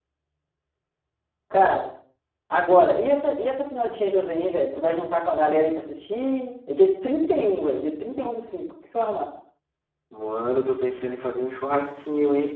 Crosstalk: none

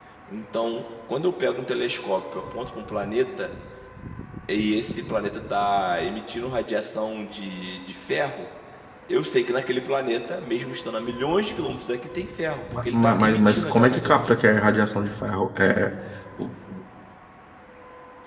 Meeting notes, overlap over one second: present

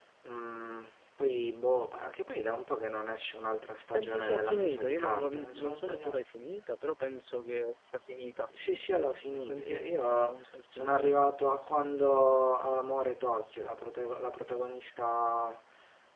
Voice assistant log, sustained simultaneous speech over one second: present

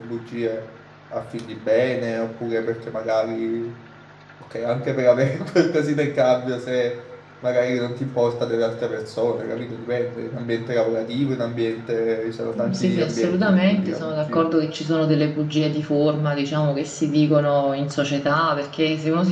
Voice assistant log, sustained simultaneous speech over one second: present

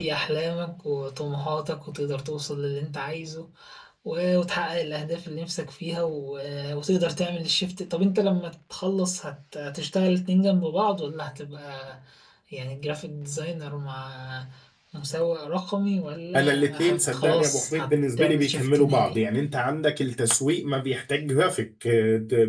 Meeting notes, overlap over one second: present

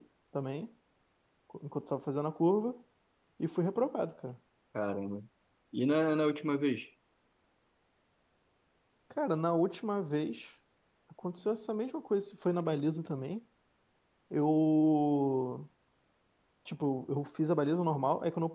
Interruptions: none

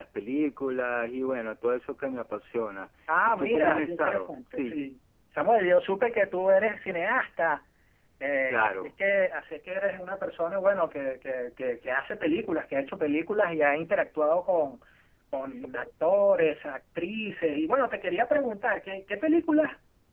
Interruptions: present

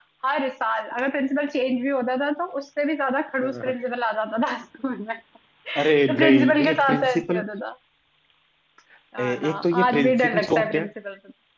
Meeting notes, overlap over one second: present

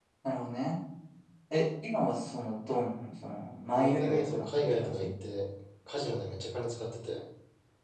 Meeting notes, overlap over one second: present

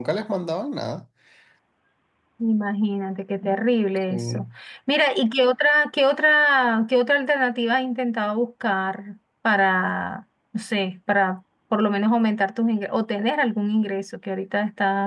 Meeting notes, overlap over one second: none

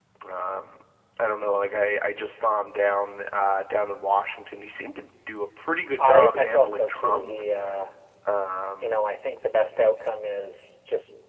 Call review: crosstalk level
present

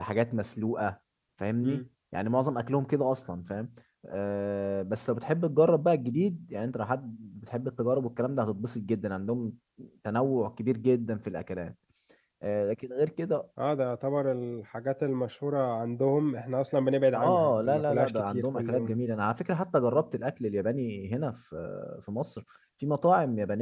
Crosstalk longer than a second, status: present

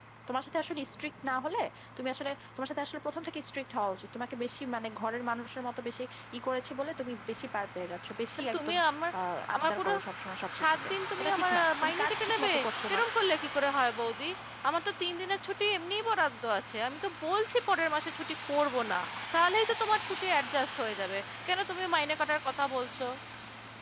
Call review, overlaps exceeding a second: present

